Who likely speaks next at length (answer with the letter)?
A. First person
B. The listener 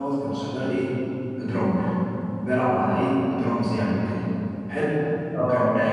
A